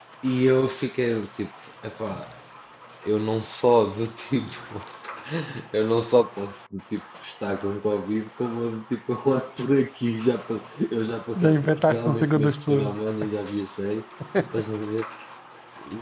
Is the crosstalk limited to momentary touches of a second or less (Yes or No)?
No